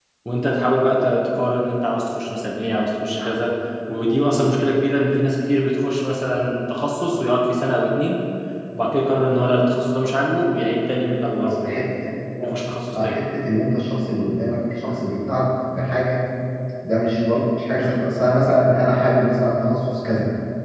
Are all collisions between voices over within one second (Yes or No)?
Yes